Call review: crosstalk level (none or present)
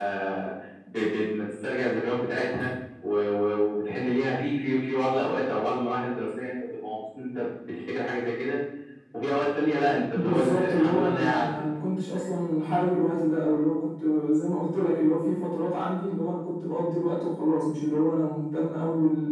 present